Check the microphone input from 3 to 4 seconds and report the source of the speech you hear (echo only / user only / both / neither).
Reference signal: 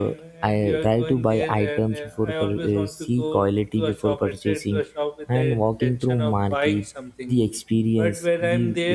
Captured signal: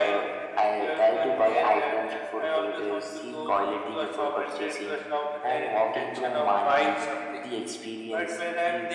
echo only